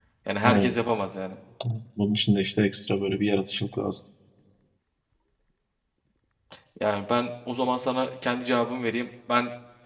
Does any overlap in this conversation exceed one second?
No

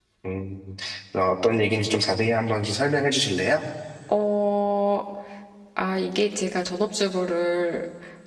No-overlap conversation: Yes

